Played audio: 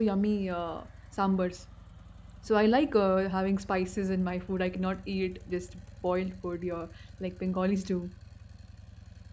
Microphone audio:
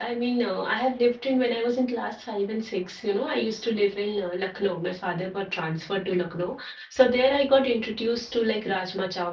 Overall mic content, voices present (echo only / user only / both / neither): user only